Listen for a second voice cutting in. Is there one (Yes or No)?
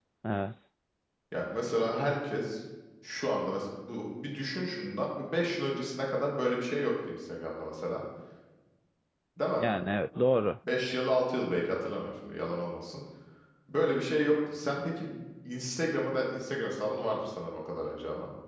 No